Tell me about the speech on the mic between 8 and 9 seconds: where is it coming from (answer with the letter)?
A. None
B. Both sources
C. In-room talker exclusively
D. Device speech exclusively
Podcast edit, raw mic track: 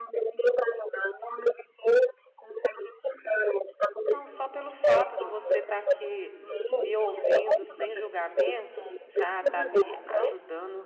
B